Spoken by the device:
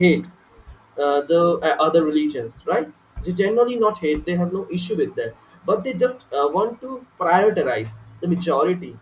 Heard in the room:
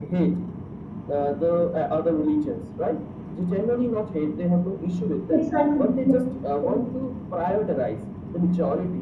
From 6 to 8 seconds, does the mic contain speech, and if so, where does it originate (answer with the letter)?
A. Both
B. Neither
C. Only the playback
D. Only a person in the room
A